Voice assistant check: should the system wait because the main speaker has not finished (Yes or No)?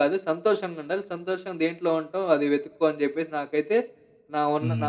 No